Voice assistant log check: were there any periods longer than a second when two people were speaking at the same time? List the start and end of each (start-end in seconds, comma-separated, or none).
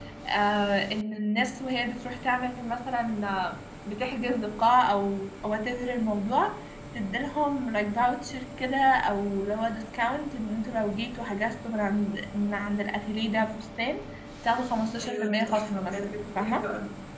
15.0-16.6